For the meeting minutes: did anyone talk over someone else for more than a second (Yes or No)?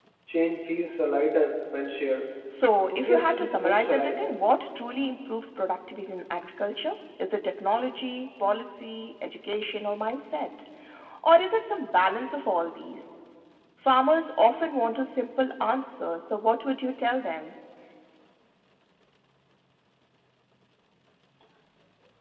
Yes